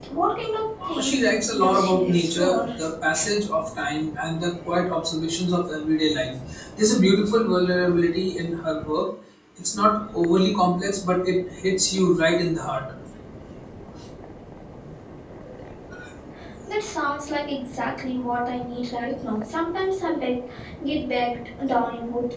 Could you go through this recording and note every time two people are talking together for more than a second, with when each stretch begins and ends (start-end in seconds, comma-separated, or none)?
0.8-2.7